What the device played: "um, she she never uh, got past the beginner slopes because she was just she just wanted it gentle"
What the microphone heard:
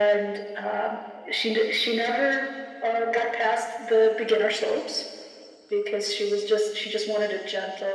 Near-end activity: none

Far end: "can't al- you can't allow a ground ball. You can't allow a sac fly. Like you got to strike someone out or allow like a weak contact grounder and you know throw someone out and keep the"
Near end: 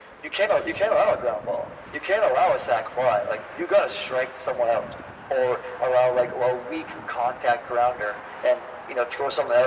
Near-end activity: none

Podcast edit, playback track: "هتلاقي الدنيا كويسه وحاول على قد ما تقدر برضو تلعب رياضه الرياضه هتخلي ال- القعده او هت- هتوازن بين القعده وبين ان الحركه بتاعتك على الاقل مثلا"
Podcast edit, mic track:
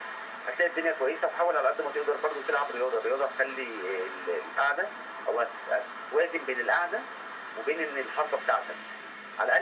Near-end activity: none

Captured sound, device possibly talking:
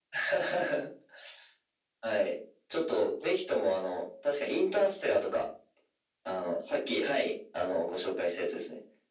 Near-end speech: none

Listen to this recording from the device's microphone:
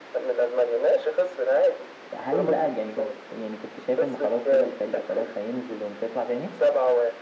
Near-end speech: present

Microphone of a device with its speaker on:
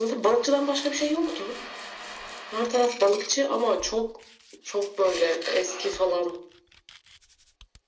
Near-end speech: none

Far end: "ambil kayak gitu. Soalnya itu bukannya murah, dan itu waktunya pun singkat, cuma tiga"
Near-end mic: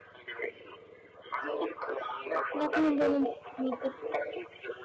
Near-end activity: present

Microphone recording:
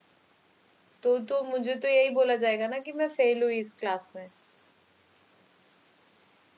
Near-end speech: present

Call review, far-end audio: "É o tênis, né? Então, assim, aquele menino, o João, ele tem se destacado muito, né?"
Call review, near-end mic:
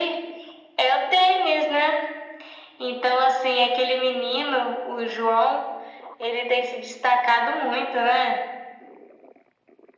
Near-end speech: none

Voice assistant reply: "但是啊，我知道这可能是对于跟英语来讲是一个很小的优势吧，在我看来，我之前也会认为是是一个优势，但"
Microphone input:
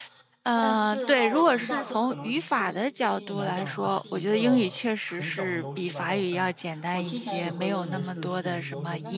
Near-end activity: present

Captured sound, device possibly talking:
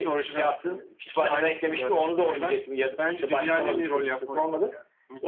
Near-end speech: none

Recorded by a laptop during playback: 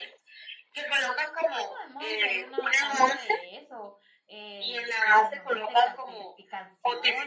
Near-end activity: present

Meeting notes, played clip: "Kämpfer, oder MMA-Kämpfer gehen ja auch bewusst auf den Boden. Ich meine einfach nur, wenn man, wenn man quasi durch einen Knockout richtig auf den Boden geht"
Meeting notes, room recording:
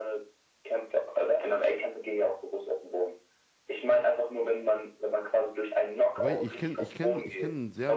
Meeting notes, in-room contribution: present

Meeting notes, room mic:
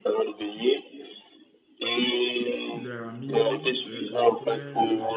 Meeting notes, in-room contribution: present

